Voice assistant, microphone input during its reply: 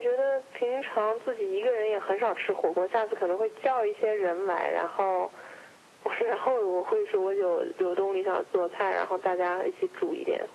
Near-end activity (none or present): none